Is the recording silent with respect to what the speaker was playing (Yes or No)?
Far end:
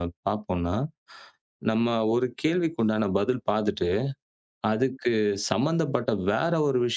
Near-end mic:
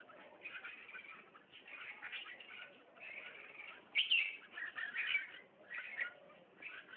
Yes